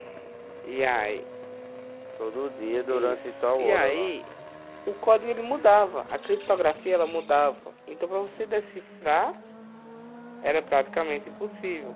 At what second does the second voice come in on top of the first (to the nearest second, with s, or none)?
3 s